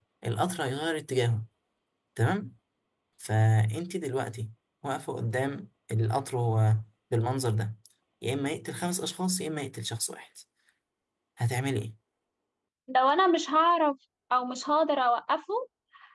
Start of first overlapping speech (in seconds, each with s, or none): none